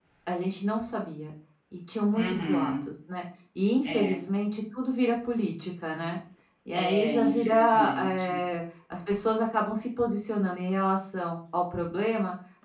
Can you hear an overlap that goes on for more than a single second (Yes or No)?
Yes